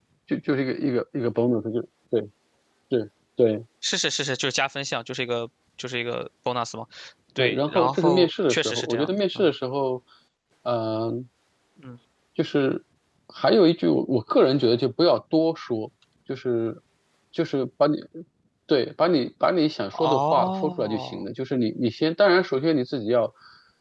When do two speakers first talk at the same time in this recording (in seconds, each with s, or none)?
7.4 s